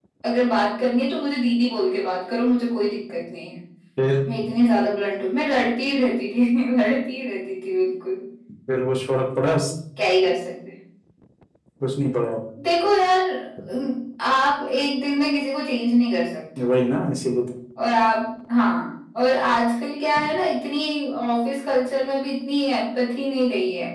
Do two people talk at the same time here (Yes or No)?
No